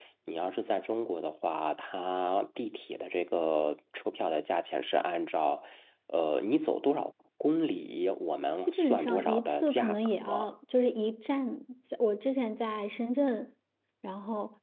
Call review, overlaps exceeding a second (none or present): present